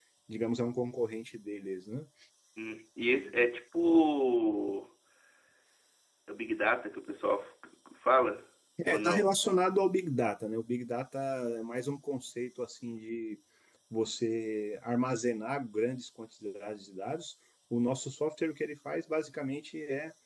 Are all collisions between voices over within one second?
Yes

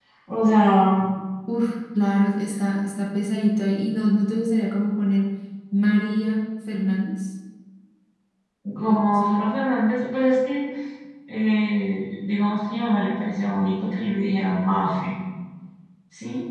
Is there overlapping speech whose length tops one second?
No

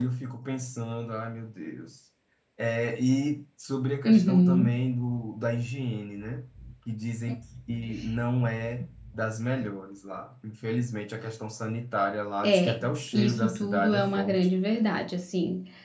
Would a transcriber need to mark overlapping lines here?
Yes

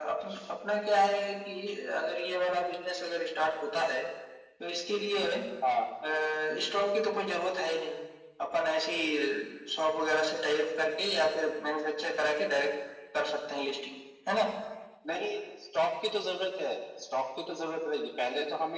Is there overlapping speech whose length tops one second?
No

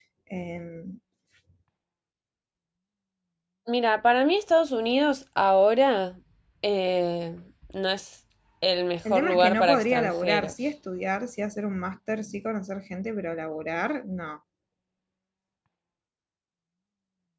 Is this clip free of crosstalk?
No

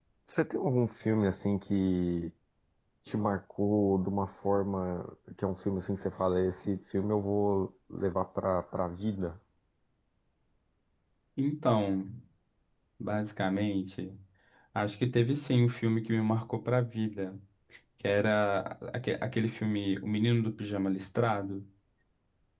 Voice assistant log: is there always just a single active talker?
Yes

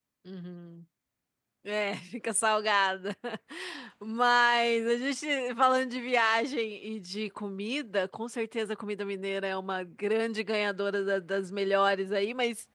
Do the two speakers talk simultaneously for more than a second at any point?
No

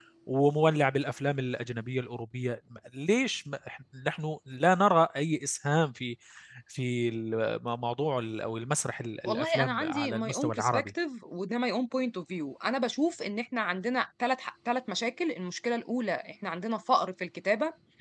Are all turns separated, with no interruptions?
No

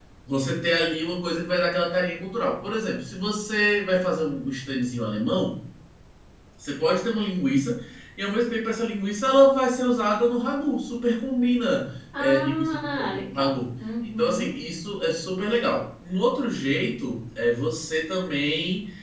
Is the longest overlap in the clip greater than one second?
Yes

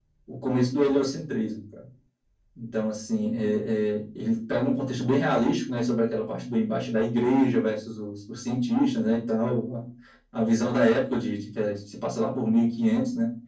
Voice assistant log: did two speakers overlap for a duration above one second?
No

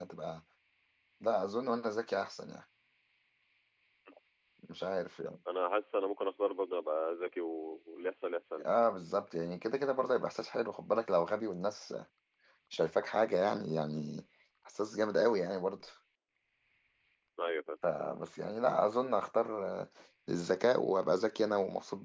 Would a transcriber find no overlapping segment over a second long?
Yes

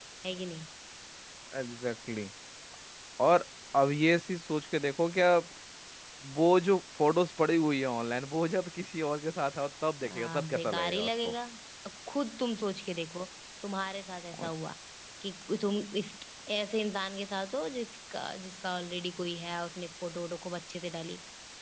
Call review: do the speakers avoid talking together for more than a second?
No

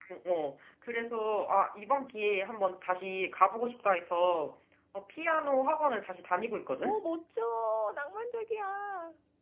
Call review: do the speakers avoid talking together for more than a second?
Yes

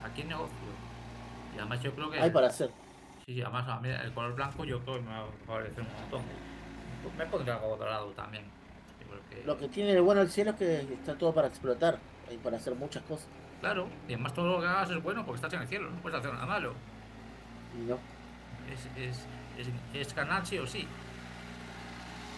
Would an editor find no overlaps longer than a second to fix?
Yes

